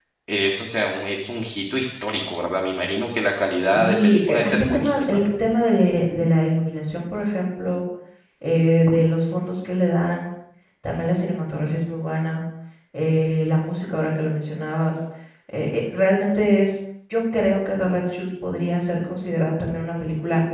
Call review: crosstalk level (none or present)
present